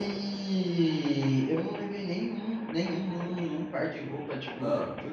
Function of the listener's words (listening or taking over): listening